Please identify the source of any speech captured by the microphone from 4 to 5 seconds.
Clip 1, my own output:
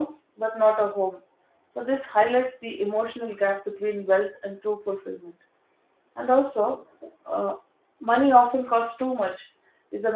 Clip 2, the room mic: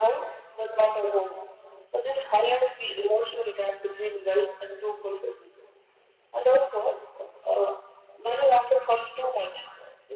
echo only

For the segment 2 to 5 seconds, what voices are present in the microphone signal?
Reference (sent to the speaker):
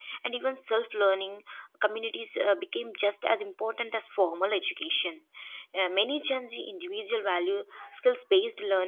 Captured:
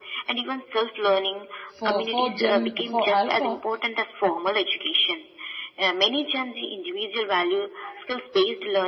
both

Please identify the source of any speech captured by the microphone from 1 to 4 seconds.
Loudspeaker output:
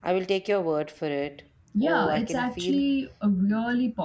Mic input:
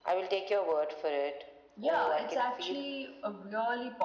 echo only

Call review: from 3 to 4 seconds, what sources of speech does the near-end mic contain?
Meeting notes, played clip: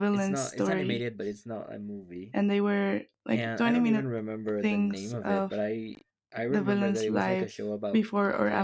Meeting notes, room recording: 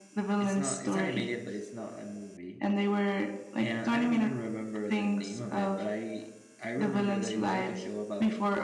echo only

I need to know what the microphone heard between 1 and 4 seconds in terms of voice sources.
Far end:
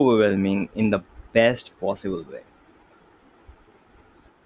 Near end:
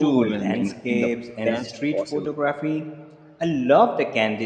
both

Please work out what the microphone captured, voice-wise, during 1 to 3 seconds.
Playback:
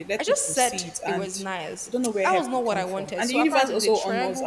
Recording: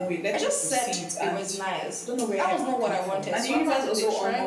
echo only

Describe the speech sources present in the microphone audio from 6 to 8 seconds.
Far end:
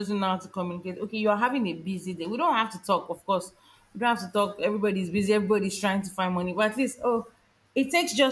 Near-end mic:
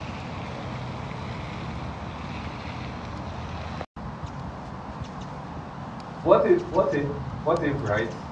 user only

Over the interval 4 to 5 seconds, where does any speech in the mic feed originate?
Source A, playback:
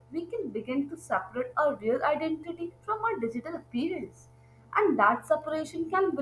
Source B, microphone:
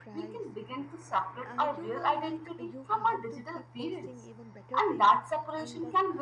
both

